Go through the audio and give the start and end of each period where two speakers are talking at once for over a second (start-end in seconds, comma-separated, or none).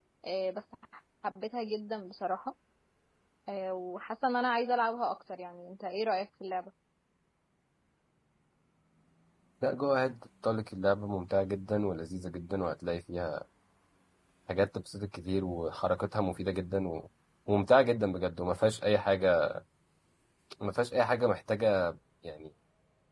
none